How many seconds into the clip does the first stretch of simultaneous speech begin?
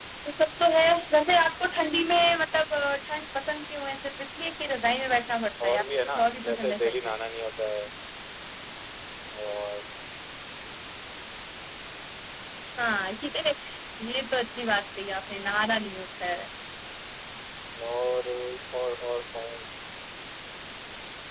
5.7 s

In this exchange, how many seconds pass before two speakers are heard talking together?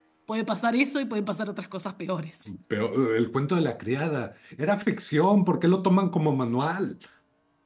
none

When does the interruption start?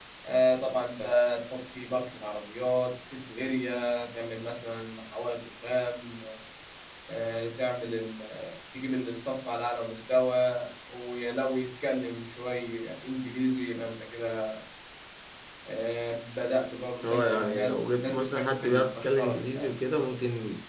17.0 s

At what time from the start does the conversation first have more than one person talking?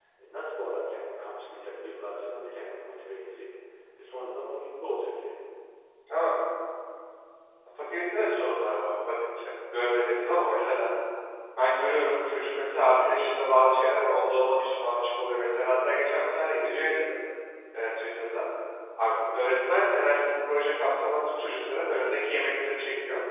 none

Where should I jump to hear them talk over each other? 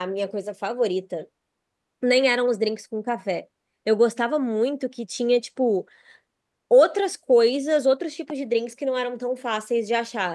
none

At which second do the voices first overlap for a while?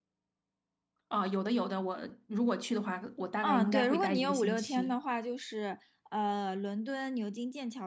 3.4 s

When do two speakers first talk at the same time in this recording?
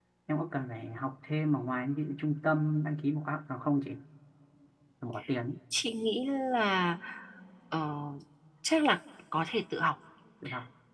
none

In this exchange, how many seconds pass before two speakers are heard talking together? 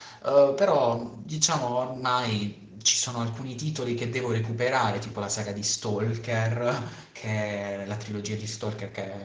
none

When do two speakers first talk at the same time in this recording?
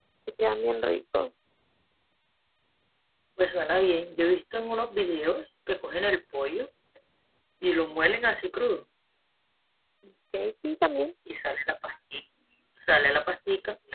none

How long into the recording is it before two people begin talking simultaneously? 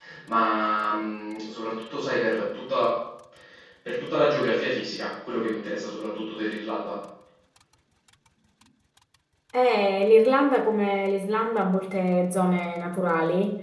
none

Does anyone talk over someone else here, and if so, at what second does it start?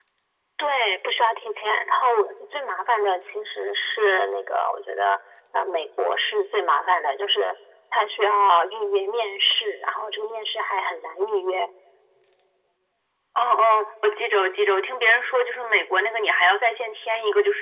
none

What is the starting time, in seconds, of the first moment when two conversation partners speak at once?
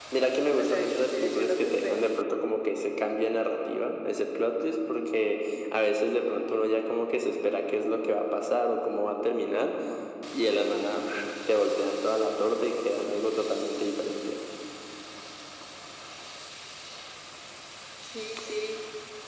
0.6 s

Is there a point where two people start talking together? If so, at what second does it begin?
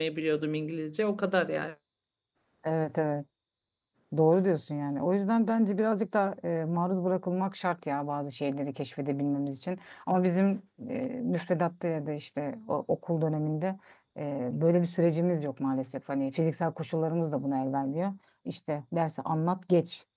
none

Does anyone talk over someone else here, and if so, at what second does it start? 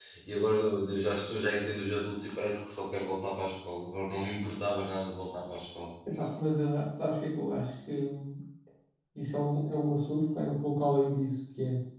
none

